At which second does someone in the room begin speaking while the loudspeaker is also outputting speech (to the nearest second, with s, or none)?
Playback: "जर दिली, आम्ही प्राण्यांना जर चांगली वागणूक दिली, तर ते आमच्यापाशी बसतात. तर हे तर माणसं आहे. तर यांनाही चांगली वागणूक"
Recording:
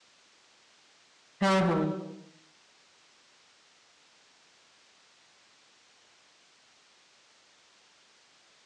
1 s